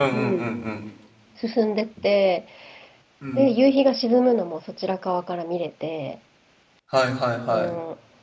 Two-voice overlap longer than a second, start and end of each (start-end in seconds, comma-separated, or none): none